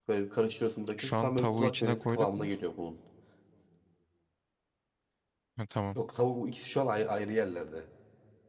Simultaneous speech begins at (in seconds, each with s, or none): 1.0 s